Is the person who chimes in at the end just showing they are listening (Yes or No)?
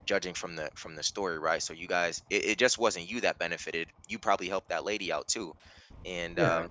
Yes